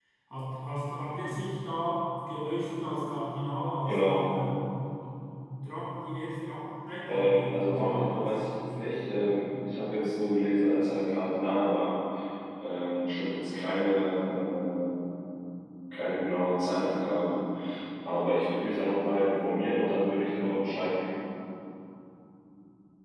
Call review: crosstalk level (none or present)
present